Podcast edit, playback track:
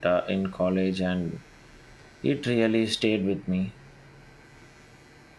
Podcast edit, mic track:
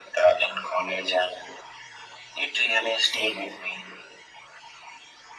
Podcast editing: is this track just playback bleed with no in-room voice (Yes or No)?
Yes